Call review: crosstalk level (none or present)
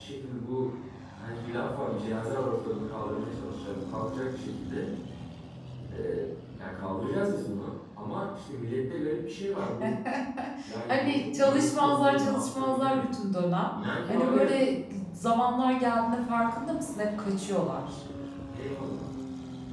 present